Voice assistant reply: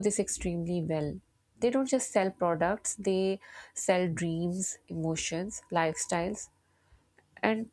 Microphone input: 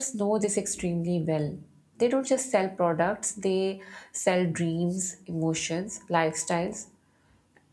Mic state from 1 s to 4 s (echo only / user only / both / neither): echo only